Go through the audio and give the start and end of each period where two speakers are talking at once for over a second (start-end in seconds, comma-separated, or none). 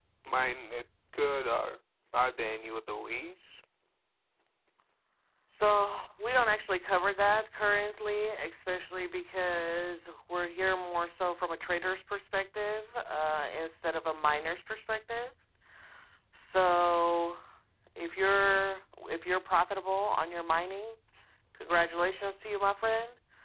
none